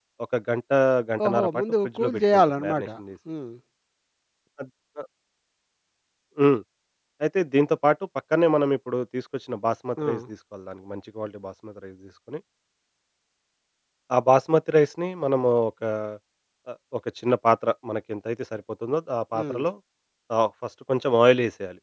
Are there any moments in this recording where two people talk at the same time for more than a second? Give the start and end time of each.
1.2-2.9

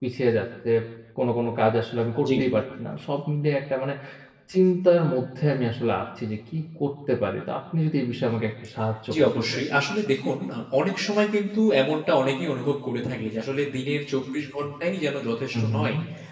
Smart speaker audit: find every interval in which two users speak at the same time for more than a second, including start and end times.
none

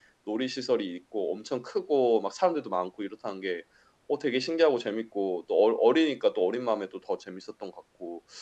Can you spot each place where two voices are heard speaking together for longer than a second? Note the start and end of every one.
none

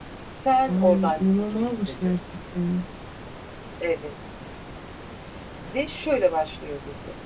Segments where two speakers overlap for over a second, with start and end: 0.7-2.1

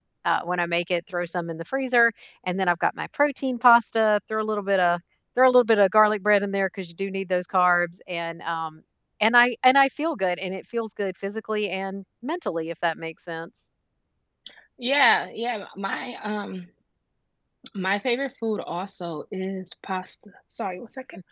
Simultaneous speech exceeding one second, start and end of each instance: none

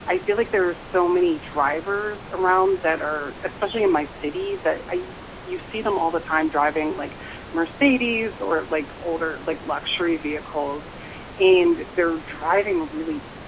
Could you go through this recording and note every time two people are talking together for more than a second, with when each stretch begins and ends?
none

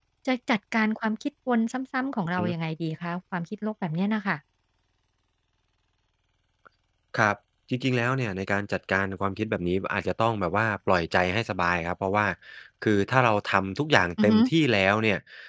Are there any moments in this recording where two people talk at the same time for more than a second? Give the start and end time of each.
none

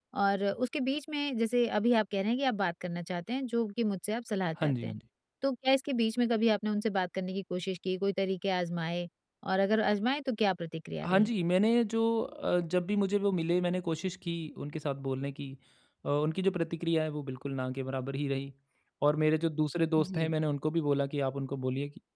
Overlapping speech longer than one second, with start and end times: none

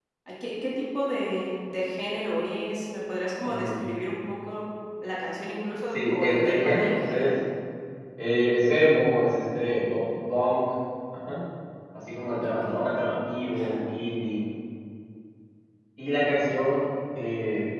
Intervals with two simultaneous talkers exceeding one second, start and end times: 5.9-7.3

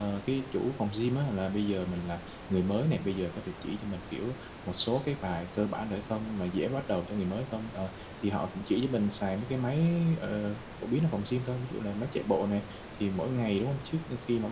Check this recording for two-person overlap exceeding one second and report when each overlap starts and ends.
none

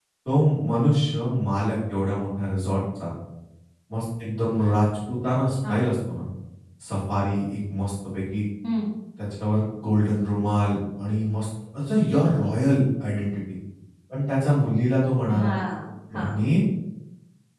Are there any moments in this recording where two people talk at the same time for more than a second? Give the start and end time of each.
none

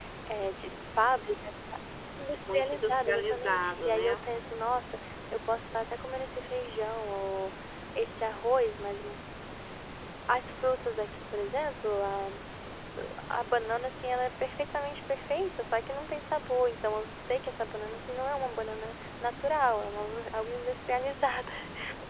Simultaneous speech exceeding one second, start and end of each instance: 2.5-4.2

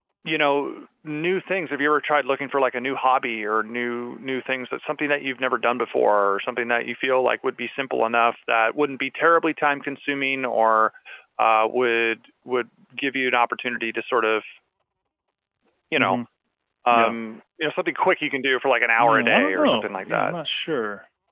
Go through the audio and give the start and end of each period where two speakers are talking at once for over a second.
19.0-20.3

